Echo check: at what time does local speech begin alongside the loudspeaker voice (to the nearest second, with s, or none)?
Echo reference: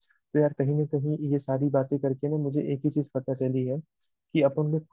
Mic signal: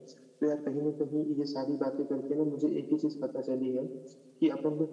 none